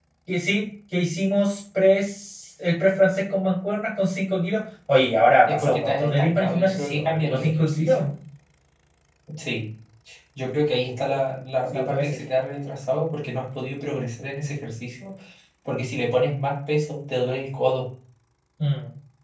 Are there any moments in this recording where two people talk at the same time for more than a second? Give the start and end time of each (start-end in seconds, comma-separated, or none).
5.5-8.0